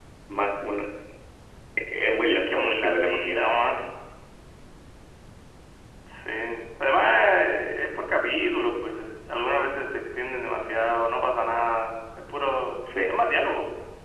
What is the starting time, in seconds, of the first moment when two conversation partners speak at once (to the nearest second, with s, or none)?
2 s